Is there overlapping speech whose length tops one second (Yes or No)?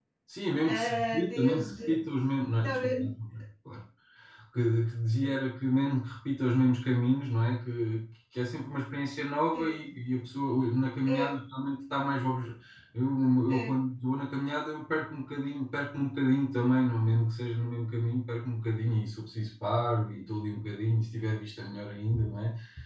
Yes